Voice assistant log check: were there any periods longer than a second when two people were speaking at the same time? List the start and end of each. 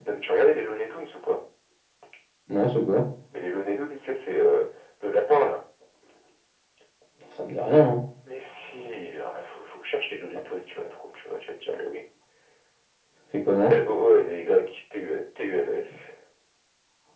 none

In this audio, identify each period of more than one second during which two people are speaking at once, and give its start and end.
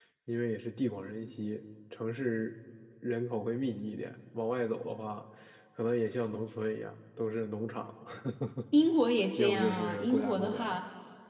9.4-10.8

